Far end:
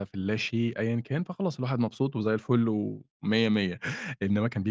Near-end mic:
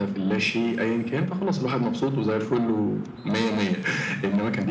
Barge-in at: none

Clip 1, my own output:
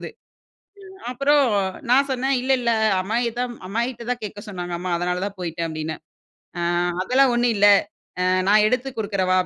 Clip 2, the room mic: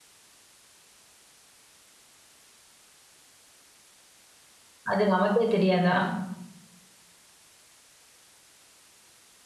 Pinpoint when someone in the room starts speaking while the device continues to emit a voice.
5 s

